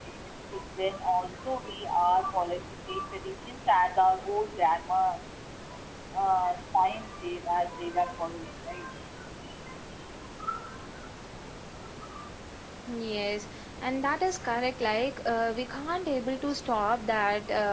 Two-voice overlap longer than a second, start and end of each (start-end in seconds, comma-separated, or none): none